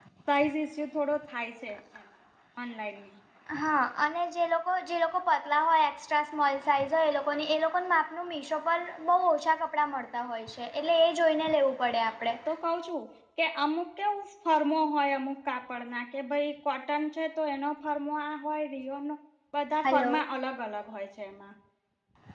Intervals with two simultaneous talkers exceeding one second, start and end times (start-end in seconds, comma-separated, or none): none